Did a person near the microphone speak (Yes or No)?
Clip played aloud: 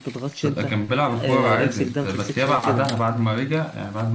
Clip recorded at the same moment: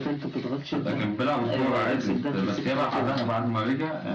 No